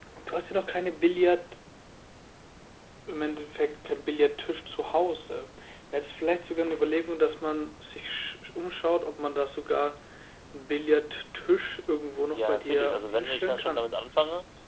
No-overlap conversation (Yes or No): No